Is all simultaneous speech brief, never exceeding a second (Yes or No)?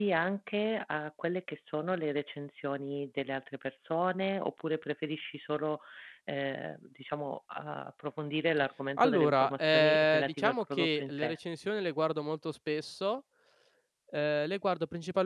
No